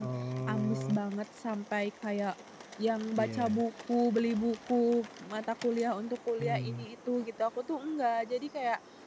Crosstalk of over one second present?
No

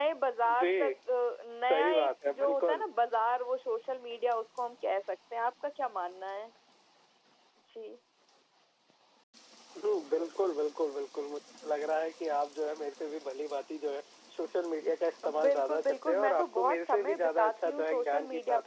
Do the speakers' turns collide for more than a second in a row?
Yes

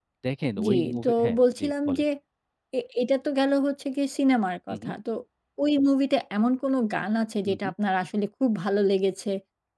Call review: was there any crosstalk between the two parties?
Yes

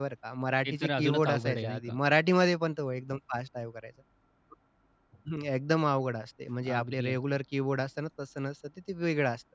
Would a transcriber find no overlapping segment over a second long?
No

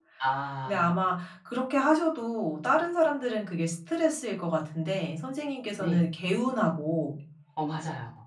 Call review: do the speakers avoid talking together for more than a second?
Yes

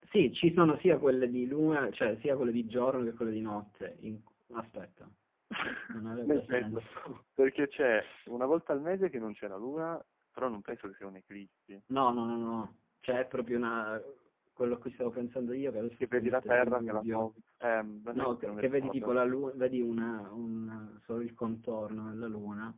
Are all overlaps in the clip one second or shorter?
No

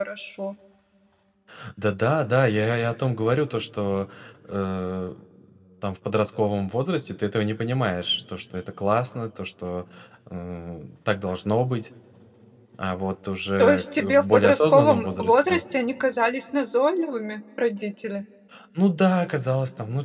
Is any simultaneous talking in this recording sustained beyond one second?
Yes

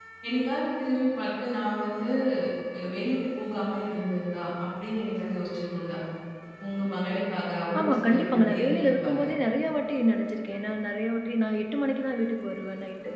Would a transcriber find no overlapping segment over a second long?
No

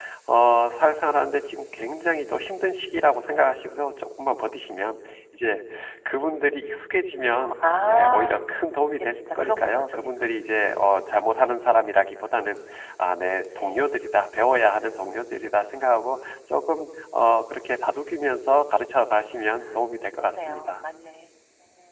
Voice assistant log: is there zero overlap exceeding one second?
No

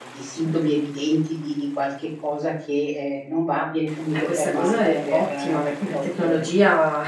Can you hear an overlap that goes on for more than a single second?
Yes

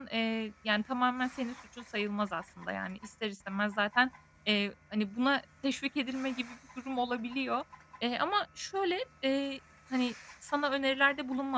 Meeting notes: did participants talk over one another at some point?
No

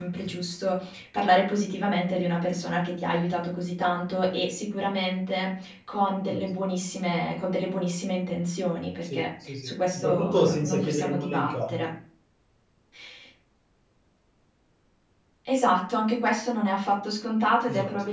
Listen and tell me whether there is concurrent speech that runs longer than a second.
Yes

